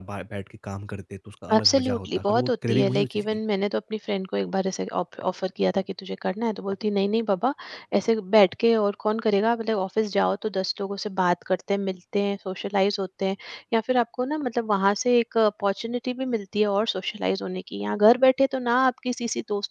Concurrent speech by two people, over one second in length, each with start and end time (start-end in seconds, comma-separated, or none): 1.5-3.4